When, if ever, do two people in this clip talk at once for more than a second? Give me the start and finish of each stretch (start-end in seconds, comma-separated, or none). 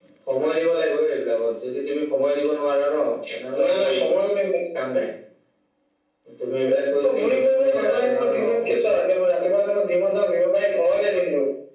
7.1-8.6